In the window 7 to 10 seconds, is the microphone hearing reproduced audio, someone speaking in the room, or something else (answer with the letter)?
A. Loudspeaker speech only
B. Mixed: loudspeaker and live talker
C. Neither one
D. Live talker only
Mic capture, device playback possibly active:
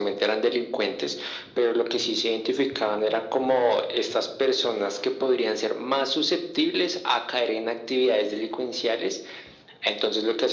A